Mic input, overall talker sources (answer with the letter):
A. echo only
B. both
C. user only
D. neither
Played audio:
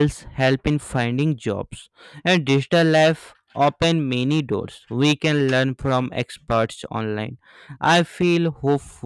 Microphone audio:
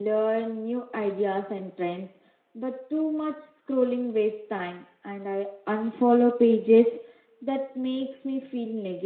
C